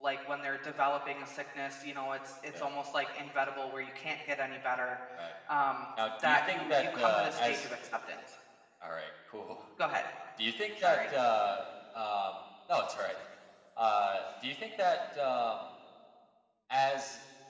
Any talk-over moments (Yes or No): Yes